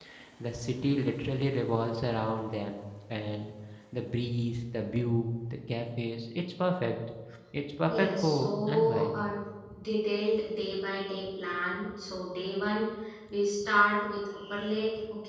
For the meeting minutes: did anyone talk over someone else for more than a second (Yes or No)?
Yes